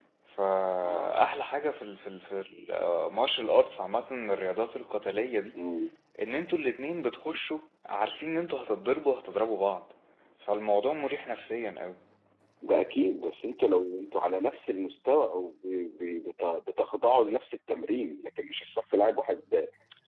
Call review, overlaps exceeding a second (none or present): none